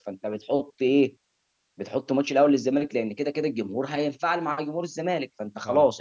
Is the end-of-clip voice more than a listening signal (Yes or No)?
No